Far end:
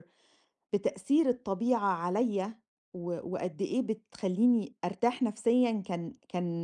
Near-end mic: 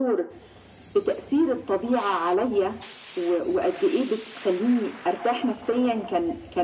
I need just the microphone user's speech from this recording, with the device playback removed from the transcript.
none

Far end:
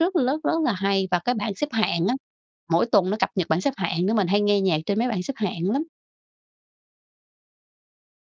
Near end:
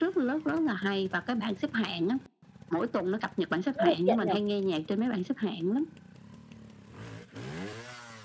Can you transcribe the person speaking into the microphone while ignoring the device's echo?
Rất là tiện nhỉ?

